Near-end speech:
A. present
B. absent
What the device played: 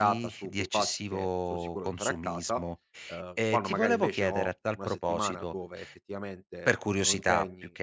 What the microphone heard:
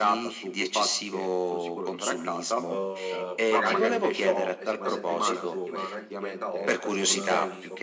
A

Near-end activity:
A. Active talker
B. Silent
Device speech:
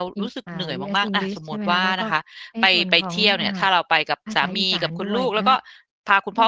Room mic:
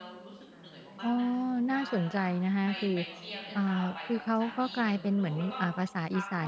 A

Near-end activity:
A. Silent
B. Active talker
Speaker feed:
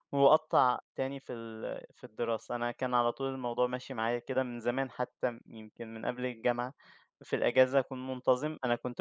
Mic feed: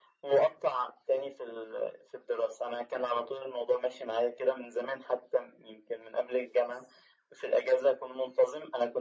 A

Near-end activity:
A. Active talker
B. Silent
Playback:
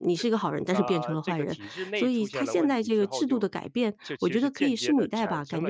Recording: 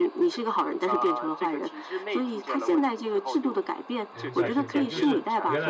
A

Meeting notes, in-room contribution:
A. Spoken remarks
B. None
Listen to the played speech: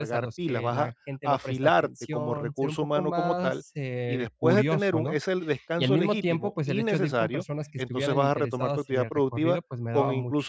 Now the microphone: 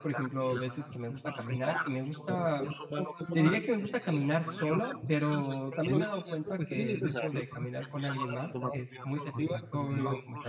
A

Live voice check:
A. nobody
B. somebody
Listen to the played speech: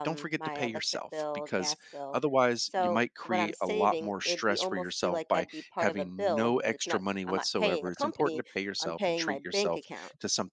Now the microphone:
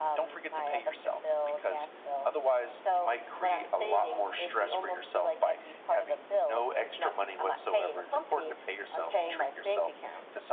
A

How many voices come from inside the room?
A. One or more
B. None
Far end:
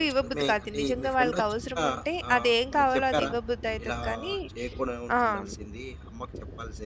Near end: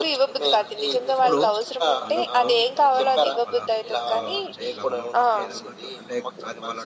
A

